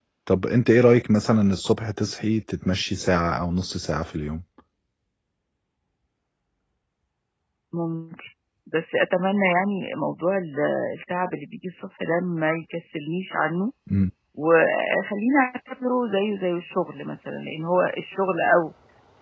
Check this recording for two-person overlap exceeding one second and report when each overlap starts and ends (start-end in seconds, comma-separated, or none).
none